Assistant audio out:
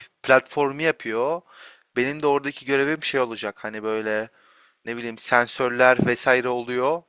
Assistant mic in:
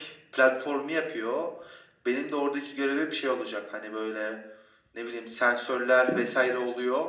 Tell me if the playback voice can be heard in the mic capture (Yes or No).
Yes